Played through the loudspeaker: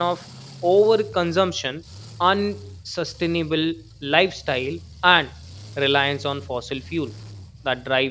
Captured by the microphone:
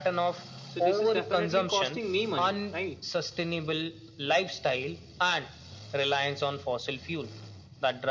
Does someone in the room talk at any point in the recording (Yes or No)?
Yes